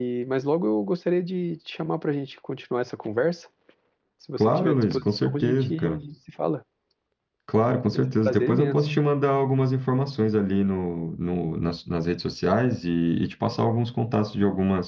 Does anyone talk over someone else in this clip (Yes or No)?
Yes